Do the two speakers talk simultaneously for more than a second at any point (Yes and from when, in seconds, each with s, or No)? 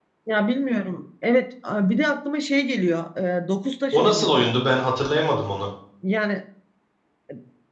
No